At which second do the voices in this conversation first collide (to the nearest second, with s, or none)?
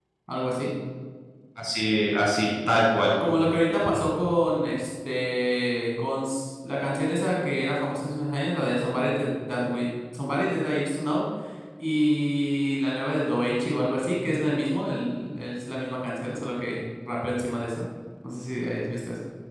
none